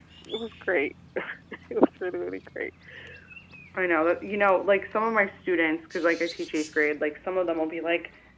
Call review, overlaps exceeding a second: none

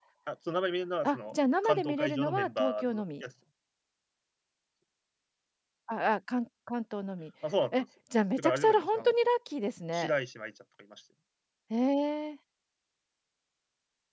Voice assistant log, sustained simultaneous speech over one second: present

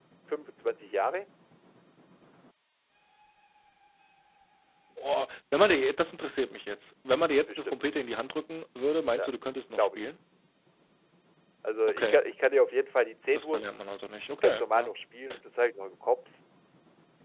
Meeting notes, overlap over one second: none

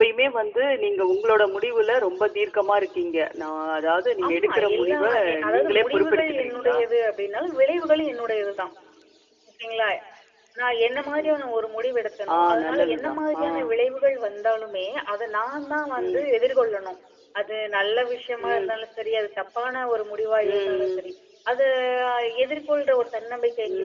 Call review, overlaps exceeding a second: present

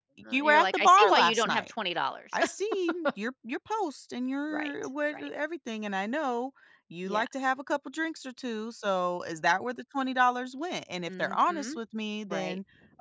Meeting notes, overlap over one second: present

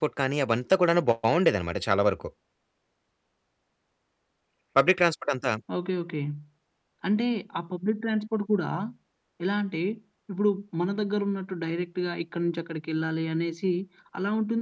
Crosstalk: none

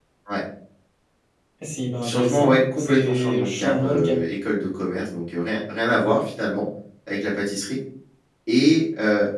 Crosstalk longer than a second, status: present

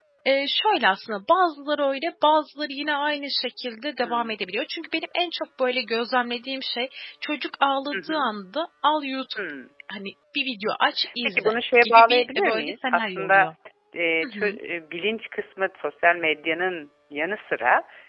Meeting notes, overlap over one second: present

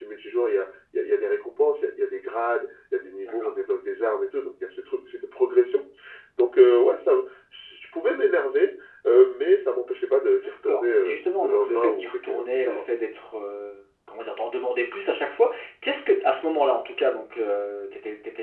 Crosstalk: present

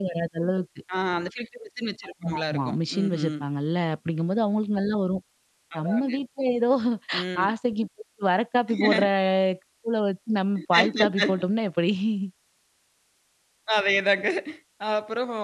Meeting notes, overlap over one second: present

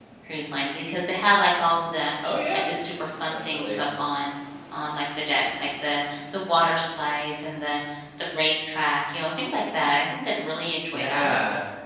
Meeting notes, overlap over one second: none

